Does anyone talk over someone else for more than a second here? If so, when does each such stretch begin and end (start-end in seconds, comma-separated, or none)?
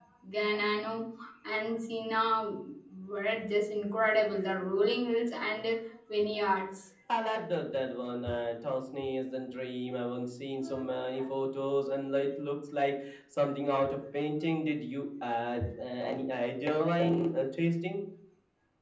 none